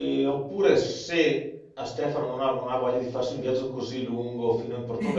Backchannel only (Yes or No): Yes